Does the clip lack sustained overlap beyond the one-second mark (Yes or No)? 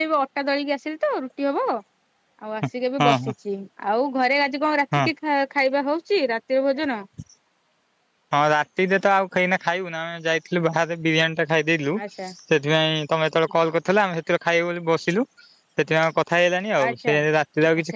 Yes